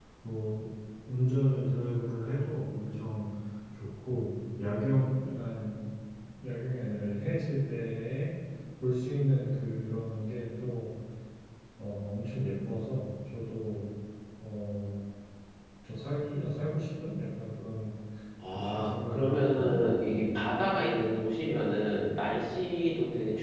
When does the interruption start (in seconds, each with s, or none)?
18.5 s